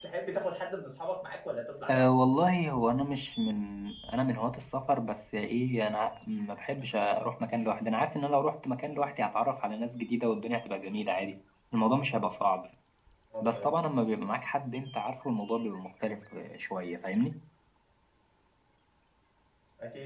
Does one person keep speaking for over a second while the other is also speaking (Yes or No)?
No